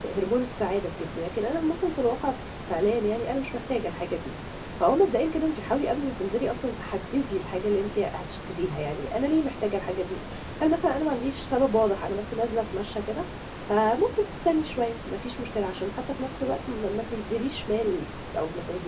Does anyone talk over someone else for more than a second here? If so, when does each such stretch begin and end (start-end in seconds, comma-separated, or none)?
none